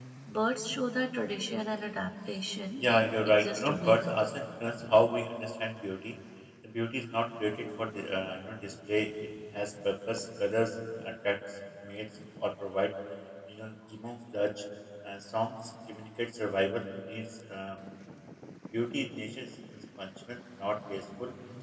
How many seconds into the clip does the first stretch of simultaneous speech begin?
2.8 s

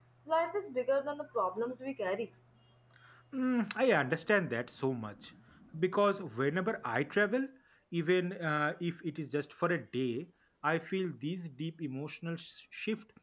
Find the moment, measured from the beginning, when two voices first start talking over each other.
none

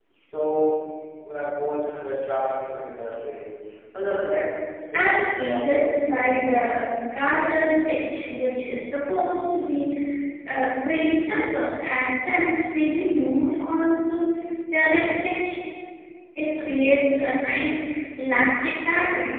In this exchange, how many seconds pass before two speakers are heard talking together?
4.9 s

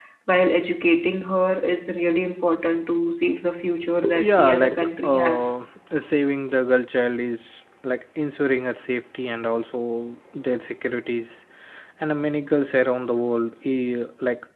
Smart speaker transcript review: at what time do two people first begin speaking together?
4.0 s

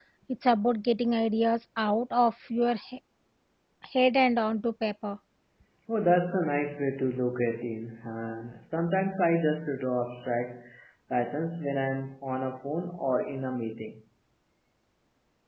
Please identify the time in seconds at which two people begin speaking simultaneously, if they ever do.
none

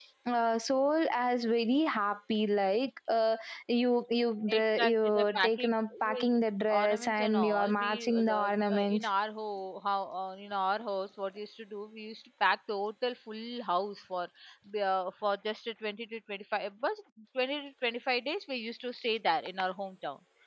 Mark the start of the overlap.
4.5 s

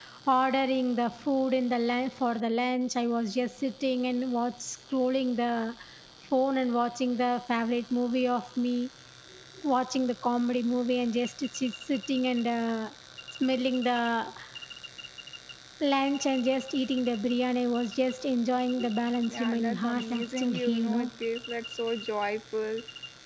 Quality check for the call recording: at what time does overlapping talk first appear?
19.3 s

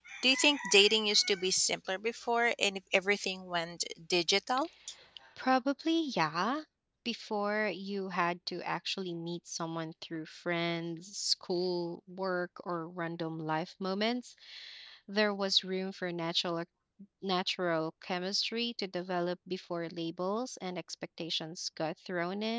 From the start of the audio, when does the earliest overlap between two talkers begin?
none

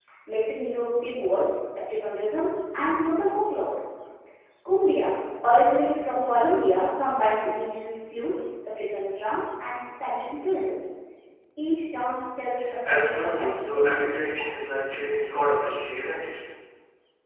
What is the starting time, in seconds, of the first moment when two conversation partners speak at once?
12.8 s

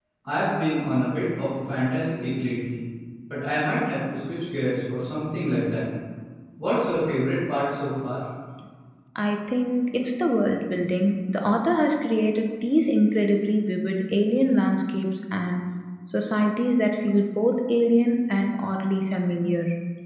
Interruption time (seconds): none

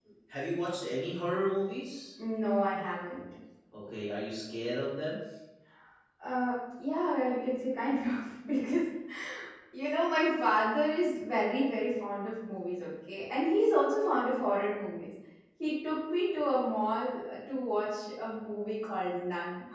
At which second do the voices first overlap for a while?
none

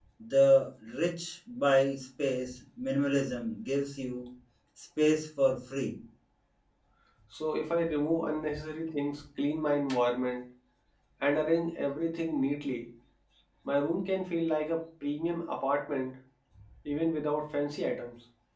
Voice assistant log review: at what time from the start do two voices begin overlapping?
none

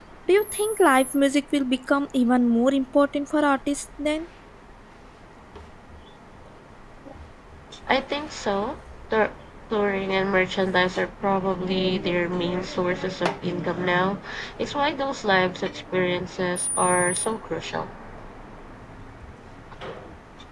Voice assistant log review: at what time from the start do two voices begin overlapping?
none

